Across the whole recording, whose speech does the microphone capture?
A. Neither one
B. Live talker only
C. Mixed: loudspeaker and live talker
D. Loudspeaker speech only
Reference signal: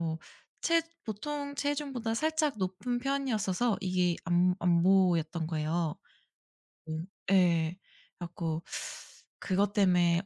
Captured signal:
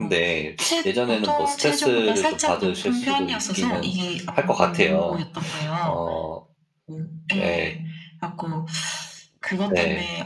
C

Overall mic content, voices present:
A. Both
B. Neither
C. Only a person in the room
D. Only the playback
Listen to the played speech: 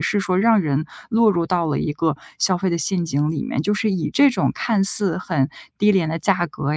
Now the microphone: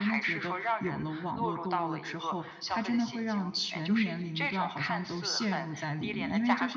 A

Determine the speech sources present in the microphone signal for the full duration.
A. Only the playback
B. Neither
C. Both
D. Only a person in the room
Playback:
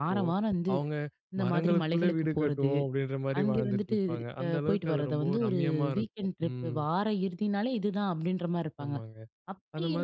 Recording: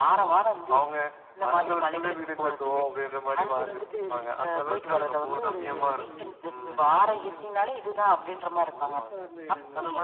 C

